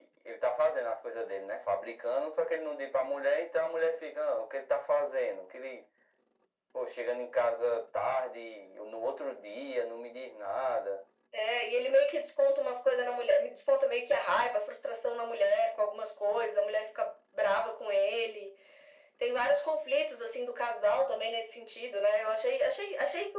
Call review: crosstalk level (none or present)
none